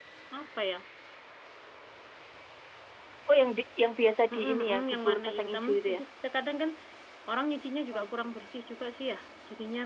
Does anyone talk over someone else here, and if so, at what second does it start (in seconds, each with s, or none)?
4.3 s